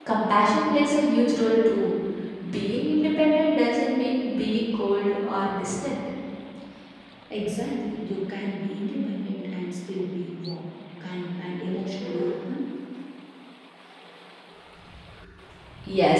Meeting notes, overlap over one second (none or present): none